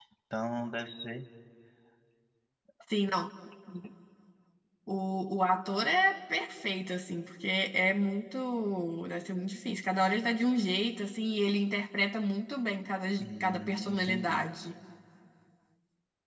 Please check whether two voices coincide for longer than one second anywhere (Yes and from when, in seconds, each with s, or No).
Yes, from 13.2 s